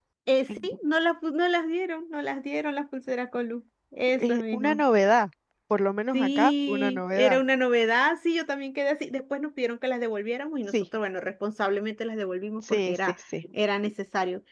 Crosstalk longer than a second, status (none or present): present